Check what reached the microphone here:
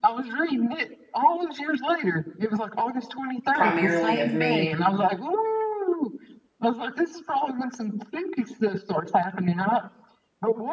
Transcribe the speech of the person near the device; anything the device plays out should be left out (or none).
primarily of me